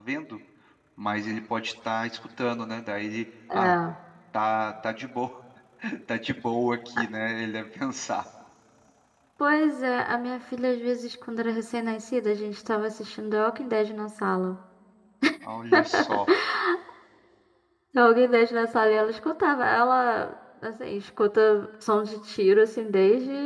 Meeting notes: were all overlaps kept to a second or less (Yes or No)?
Yes